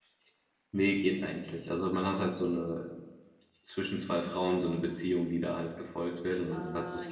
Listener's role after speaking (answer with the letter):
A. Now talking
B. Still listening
A